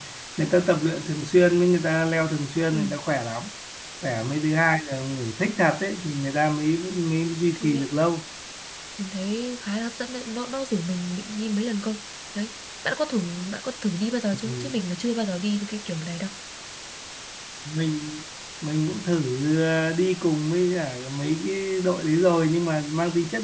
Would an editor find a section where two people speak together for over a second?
No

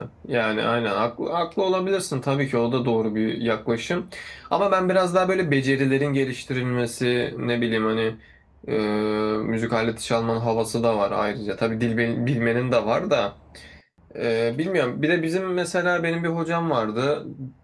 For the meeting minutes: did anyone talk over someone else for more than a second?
No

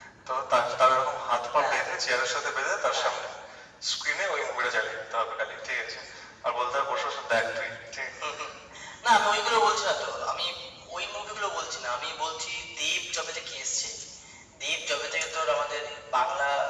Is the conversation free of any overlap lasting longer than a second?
Yes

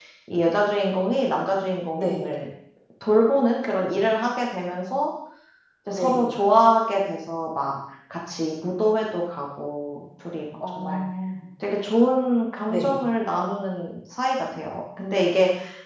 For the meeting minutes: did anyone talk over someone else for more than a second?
No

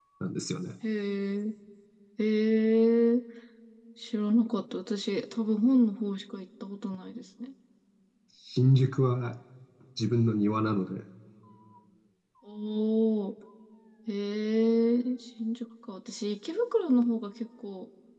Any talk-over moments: No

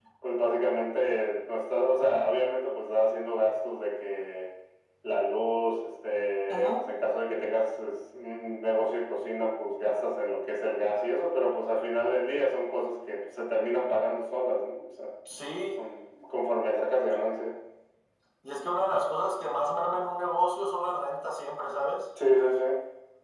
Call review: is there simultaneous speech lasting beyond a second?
No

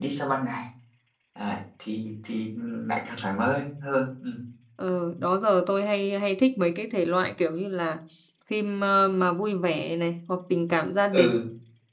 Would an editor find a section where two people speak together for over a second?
No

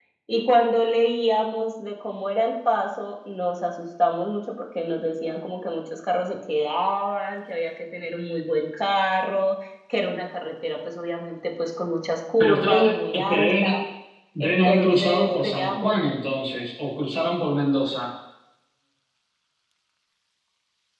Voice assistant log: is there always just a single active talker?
No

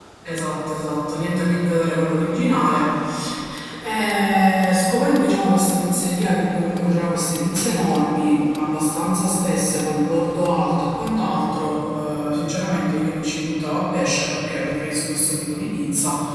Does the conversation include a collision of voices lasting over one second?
No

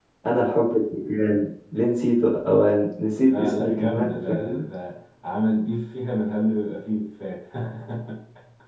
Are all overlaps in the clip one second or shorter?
No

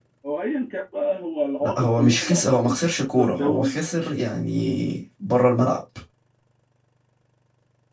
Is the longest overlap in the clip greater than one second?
Yes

